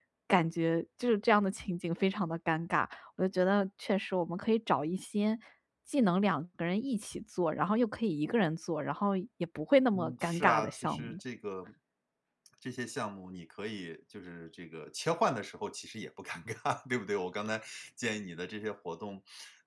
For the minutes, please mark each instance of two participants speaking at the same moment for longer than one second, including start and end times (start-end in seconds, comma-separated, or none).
9.9-11.2